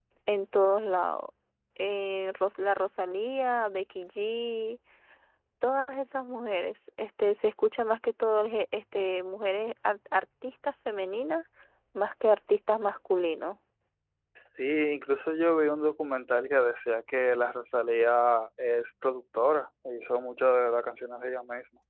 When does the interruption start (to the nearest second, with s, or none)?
none